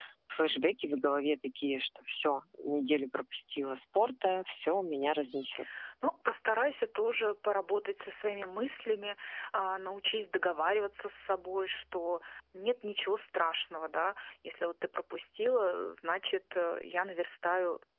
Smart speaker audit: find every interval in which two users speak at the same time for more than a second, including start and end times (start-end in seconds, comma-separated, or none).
none